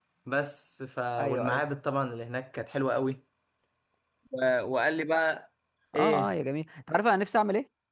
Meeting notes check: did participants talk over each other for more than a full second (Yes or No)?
No